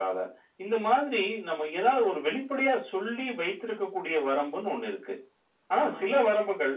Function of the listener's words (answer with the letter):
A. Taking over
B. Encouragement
B